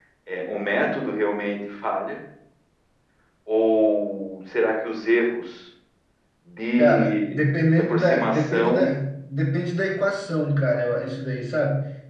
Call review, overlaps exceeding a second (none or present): present